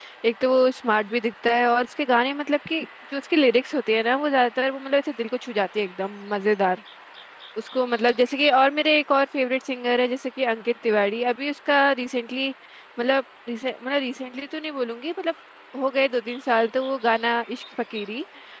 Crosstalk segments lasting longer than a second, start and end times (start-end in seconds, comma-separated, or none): none